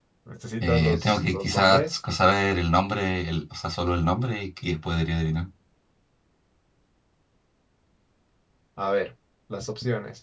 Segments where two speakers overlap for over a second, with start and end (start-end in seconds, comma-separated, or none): 0.6-2.0